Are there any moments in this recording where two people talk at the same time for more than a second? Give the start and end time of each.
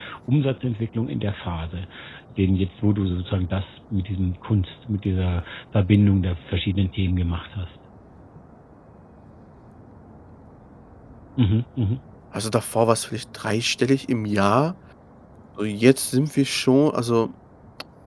none

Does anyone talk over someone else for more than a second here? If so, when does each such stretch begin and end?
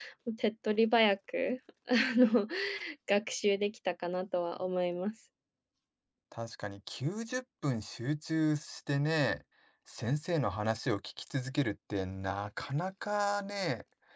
none

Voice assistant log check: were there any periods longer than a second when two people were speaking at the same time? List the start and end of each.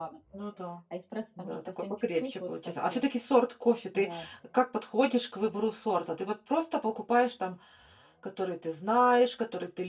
1.4-3.0

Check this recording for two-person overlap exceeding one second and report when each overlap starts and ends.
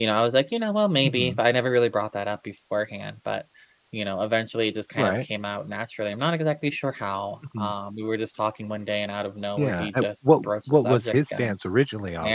9.6-11.6

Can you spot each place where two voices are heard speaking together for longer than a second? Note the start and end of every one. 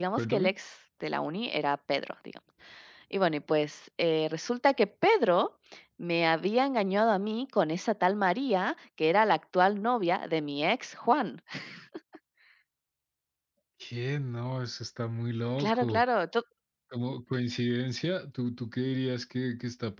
none

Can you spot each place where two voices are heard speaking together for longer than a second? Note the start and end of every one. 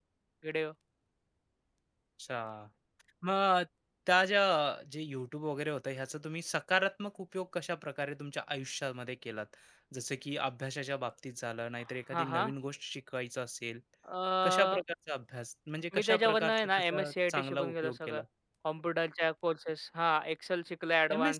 15.9-18.2

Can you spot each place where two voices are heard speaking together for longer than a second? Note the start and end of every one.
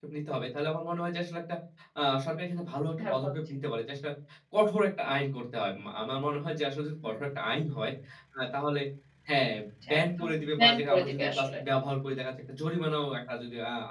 9.9-11.6

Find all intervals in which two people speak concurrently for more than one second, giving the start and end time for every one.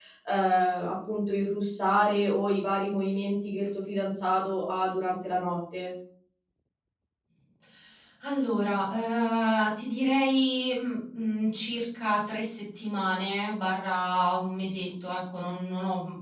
none

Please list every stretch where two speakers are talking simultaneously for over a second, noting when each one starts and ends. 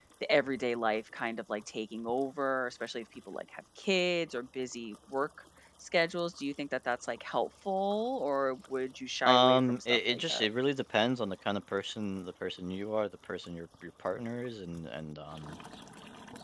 9.2-10.4

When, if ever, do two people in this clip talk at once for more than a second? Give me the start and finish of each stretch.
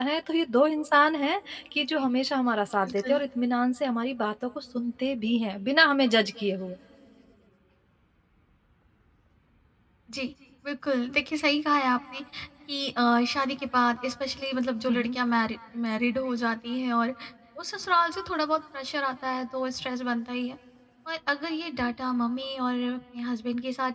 none

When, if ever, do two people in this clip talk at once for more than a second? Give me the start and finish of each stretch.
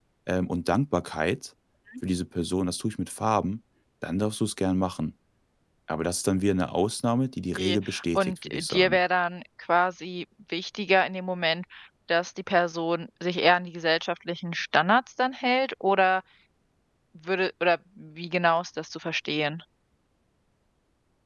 7.6-9.0

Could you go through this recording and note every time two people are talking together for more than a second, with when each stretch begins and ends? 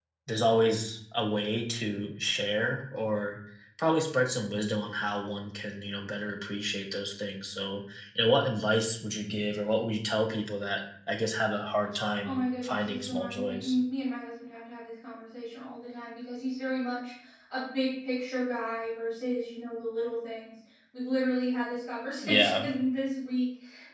12.2-13.8

